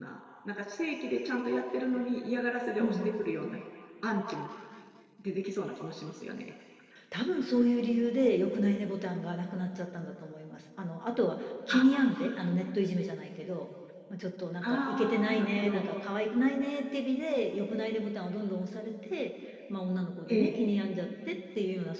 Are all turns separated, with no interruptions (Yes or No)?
No